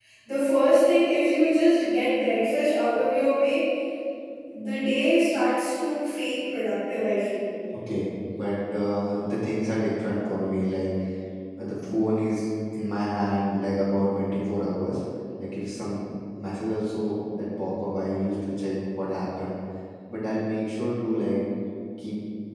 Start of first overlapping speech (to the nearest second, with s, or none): none